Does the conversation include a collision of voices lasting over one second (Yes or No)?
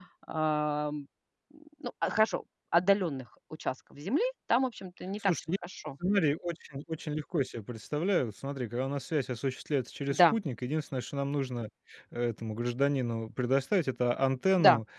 No